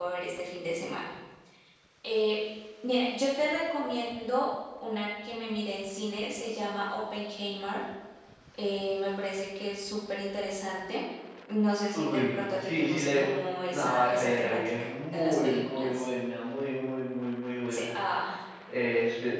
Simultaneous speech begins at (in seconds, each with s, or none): 11.9 s